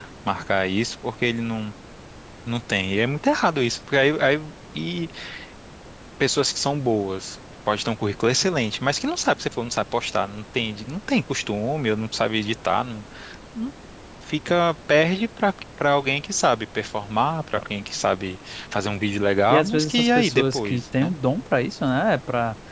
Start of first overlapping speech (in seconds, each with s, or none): 19.5 s